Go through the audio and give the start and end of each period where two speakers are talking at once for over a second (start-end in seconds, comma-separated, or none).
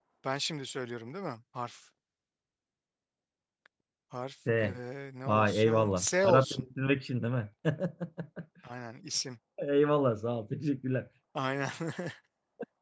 5.3-6.7